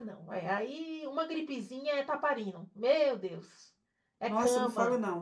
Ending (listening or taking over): taking over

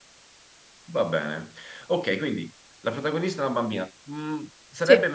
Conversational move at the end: listening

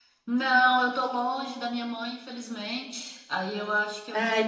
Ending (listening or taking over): listening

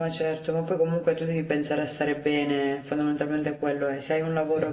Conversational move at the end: listening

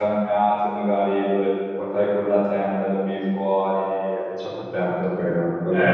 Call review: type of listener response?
taking over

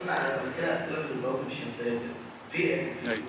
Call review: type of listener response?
listening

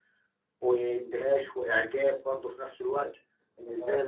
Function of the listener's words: listening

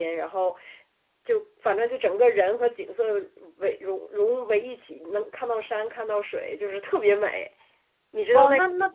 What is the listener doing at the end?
taking over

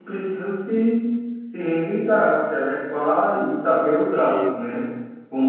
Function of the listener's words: listening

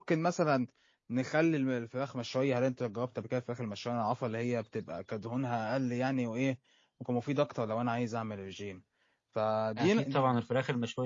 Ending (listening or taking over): taking over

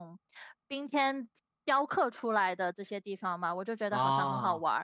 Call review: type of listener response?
listening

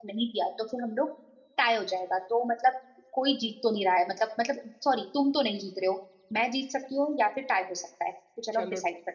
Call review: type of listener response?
taking over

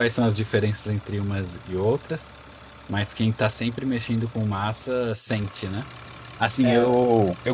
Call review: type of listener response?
listening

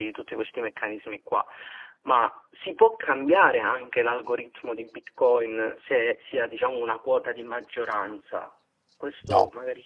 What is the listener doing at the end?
listening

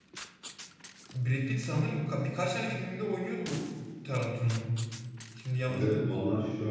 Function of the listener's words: taking over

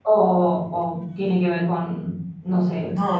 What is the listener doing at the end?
taking over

